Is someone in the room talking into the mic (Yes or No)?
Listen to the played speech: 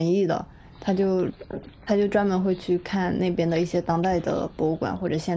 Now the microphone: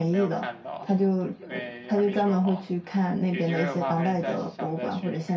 Yes